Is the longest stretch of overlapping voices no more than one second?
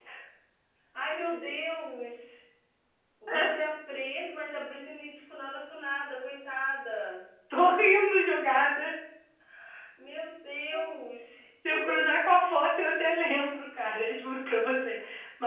Yes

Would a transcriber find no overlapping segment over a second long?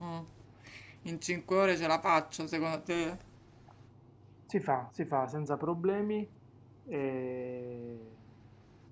Yes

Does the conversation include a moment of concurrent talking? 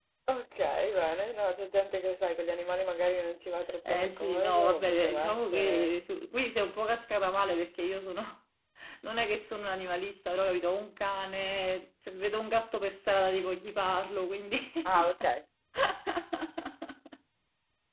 Yes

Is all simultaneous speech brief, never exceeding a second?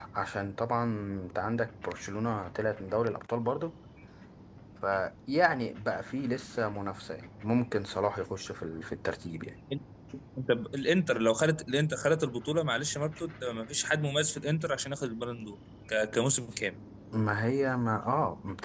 Yes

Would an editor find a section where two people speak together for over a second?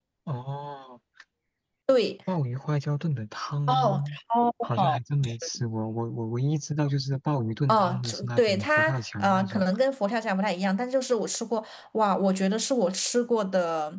Yes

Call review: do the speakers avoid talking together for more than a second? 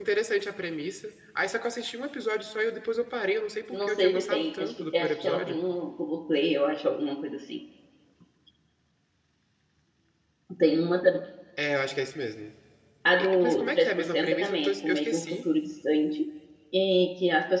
No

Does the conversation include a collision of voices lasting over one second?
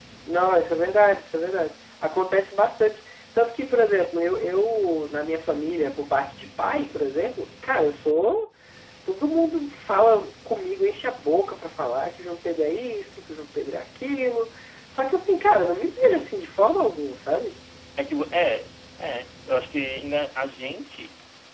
No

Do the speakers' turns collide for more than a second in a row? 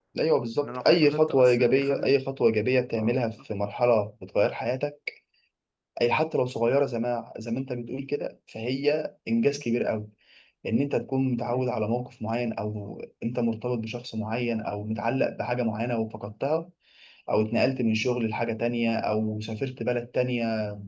Yes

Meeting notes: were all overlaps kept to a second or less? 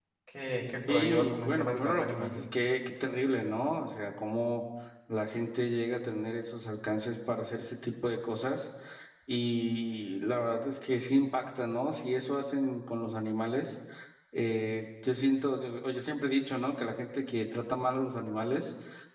No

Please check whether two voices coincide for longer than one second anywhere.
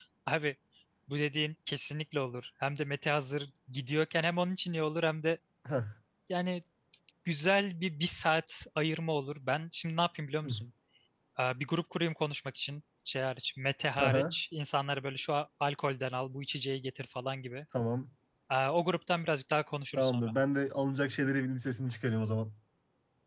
No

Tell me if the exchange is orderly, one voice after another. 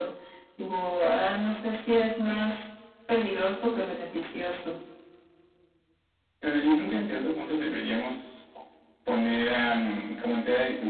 Yes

